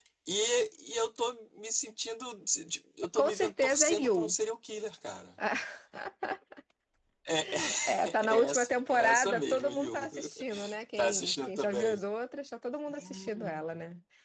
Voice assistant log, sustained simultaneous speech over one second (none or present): present